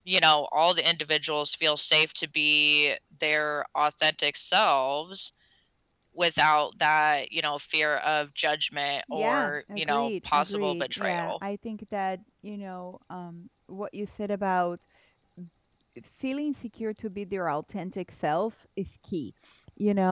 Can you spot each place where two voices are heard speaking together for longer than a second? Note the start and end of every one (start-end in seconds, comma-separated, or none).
9.1-11.3